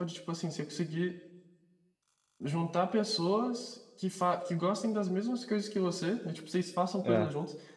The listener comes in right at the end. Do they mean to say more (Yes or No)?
No